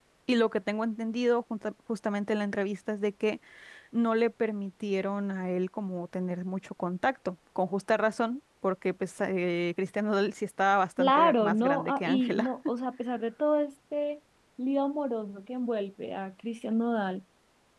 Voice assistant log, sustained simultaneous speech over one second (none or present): present